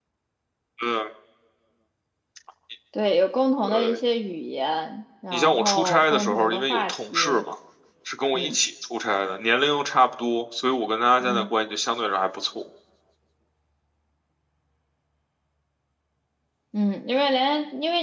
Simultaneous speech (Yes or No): Yes